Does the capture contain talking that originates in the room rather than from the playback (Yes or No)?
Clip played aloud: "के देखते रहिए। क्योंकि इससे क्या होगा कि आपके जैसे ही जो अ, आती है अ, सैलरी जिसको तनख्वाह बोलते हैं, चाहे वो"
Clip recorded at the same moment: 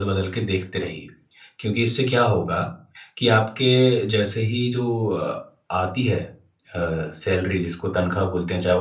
No